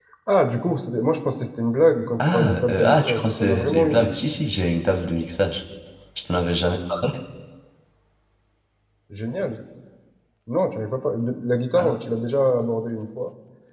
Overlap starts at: 2 s

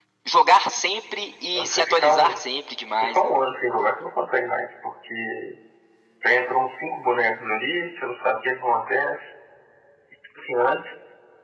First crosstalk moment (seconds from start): 2 s

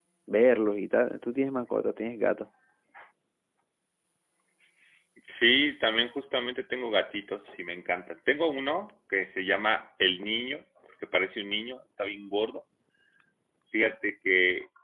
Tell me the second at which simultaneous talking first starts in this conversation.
none

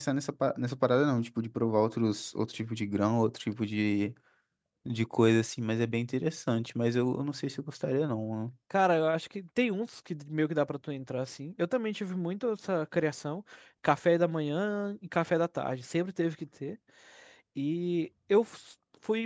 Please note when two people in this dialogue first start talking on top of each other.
none

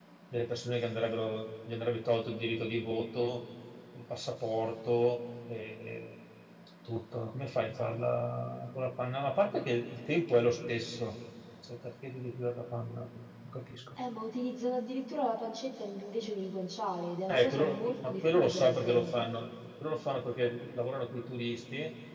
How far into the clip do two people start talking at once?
17 s

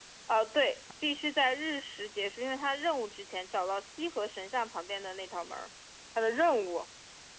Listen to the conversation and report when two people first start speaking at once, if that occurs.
none

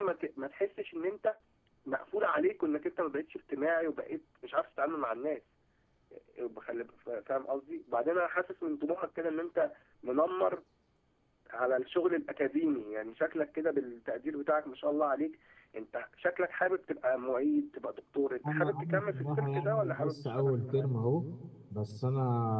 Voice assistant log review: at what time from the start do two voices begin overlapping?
18 s

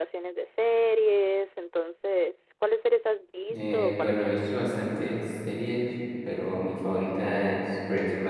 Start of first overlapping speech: 3 s

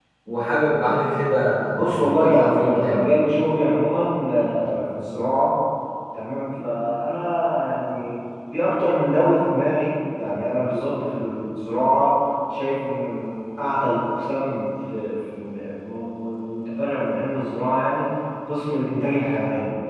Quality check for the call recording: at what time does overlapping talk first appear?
2 s

